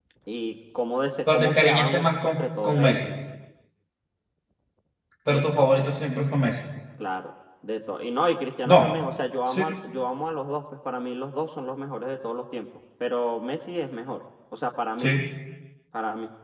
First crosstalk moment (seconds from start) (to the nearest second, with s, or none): 1 s